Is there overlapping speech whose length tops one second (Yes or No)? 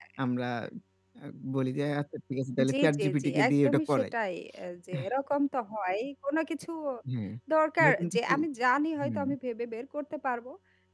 Yes